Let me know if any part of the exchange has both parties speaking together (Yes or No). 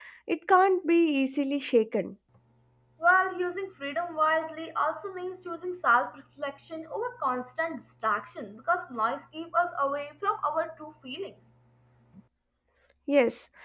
No